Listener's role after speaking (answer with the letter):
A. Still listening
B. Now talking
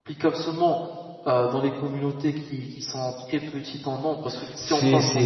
B